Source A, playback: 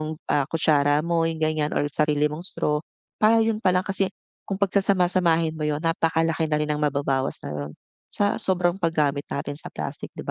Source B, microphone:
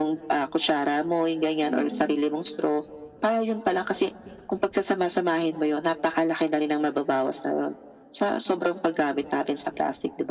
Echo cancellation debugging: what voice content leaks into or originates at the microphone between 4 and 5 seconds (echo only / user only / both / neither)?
echo only